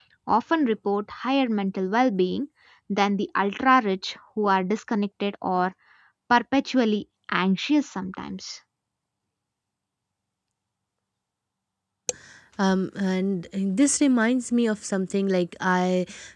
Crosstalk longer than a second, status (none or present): none